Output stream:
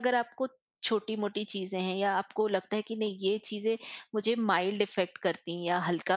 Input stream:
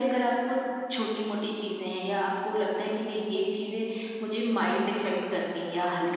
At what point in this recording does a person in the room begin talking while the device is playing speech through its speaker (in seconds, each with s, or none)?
none